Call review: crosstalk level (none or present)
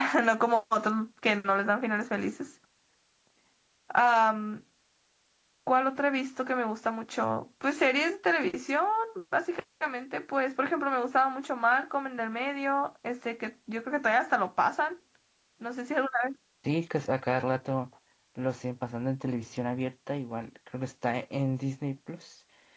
none